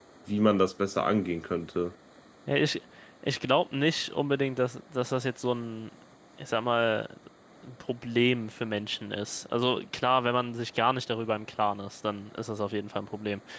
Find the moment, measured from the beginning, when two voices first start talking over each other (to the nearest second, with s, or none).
none